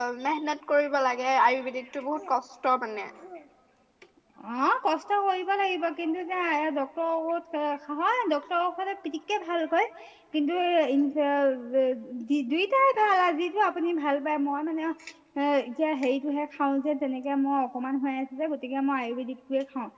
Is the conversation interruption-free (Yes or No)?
Yes